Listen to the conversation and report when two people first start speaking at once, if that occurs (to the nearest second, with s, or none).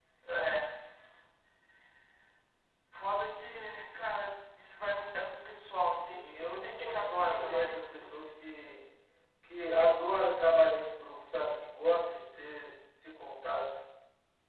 6 s